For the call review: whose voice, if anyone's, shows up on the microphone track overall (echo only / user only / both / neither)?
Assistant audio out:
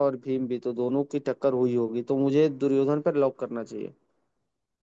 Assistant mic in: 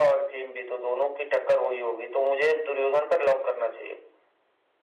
echo only